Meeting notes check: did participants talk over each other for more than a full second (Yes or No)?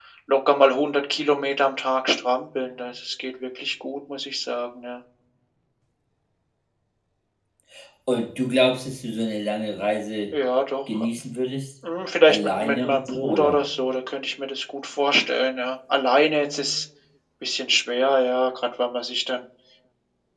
Yes